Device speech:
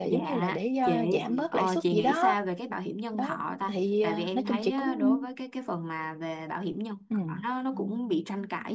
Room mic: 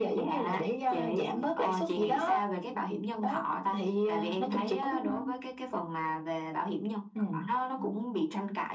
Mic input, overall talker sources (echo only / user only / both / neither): echo only